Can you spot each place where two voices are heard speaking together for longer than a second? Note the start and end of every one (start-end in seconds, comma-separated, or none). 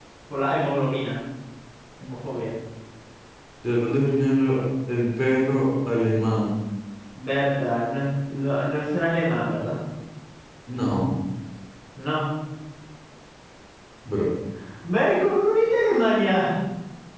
none